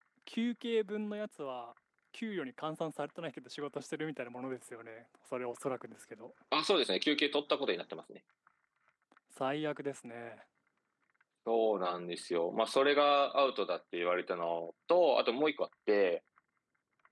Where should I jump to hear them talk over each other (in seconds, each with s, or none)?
none